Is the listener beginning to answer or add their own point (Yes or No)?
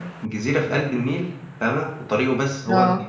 No